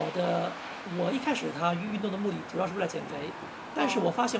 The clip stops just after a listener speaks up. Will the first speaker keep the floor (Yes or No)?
Yes